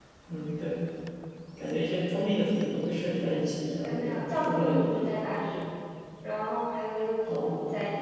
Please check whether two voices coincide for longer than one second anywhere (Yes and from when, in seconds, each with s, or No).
Yes, from 3.8 s